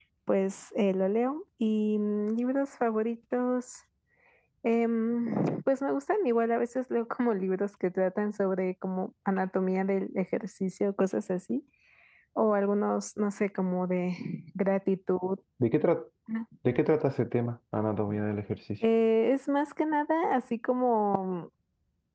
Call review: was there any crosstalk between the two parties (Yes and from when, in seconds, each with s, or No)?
No